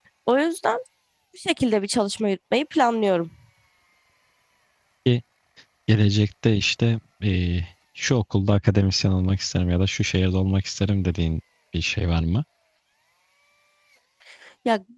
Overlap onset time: none

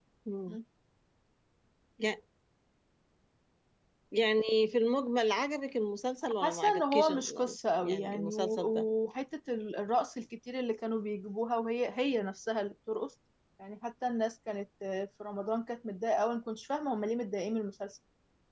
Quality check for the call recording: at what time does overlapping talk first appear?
6.2 s

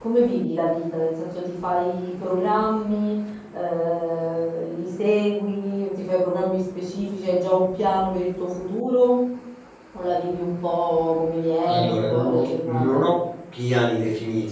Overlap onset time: 11.7 s

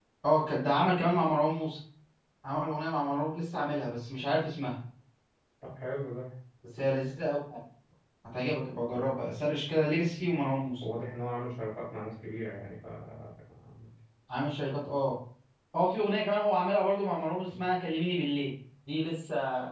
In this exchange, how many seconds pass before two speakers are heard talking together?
none

